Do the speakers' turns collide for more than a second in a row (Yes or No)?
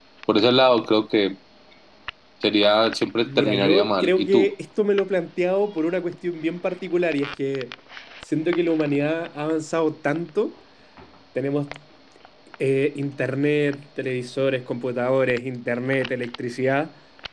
Yes